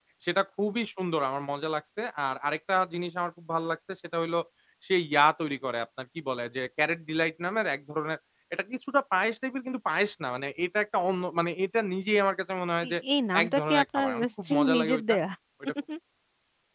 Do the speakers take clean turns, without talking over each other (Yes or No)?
No